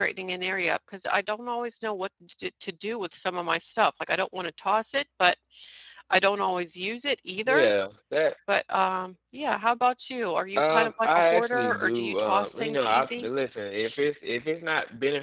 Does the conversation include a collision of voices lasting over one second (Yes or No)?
Yes